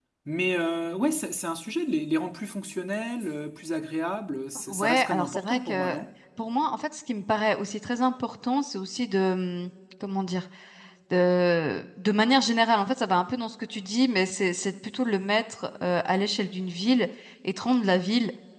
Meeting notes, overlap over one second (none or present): present